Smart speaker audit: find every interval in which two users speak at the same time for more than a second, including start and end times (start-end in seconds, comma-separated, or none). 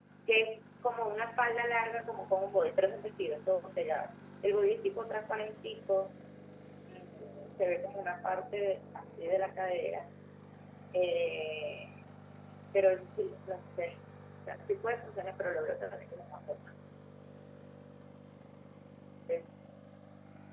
none